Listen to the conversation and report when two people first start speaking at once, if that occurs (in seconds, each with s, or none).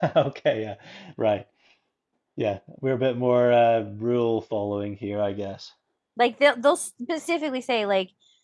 none